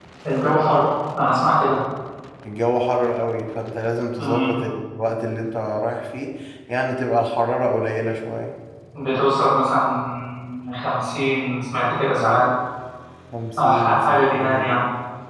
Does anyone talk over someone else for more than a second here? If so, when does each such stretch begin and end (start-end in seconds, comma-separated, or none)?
13.6-14.8